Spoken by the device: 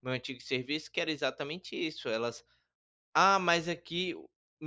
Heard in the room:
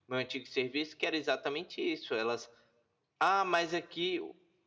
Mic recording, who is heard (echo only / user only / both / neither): echo only